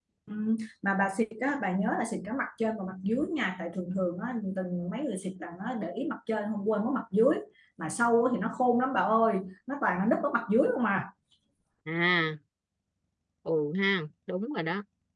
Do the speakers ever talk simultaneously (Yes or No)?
No